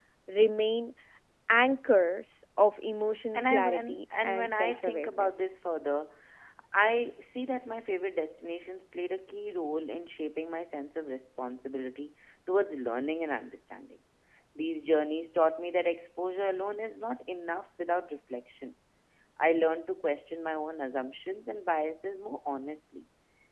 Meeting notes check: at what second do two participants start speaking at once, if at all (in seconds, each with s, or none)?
3.3 s